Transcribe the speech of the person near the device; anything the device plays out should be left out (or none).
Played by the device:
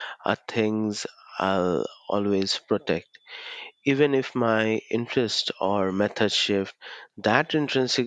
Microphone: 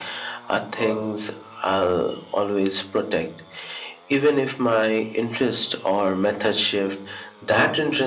or